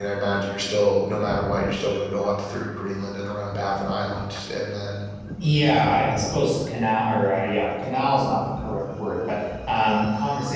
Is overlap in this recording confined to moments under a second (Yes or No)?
Yes